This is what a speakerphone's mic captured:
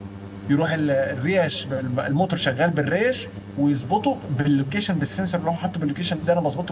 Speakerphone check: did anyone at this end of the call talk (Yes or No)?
Yes